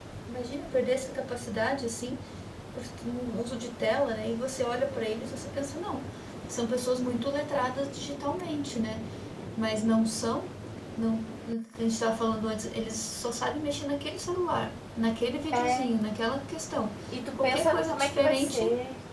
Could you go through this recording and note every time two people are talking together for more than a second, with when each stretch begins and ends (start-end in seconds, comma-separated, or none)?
17.4-18.6